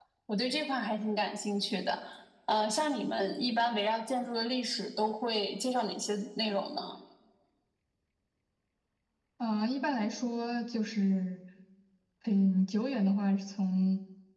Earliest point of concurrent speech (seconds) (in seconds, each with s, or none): none